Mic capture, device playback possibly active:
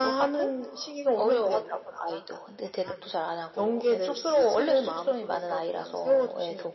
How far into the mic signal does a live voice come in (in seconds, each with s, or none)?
none